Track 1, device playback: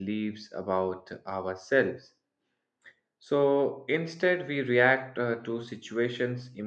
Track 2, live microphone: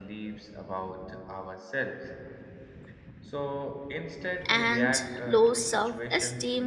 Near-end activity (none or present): present